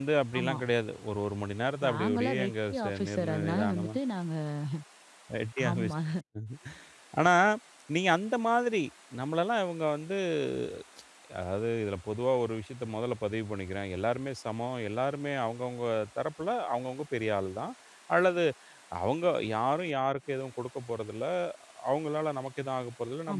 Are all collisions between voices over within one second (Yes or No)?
No